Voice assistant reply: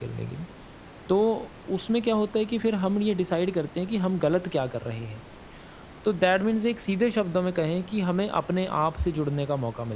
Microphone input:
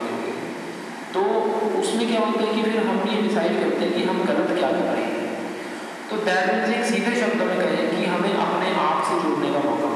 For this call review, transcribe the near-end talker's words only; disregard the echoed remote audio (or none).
none